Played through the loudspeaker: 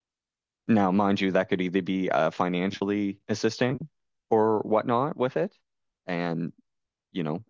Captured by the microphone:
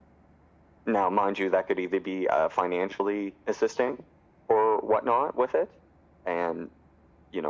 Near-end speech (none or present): none